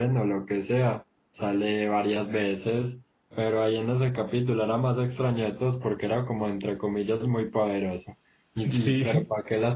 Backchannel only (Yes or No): Yes